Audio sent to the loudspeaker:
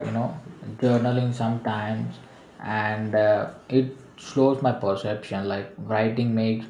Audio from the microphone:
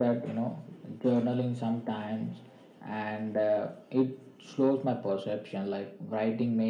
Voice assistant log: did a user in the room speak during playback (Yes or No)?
No